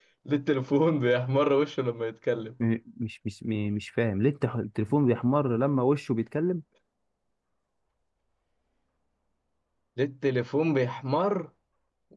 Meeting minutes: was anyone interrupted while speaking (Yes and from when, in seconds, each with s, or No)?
No